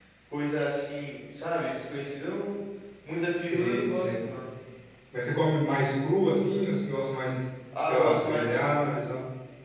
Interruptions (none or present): present